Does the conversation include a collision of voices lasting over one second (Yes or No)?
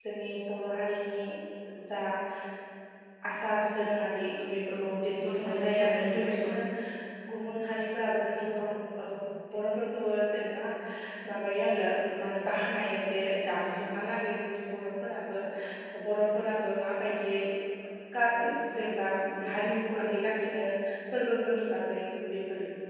Yes